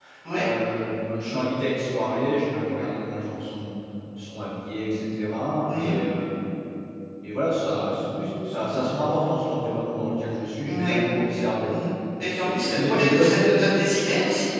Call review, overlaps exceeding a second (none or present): present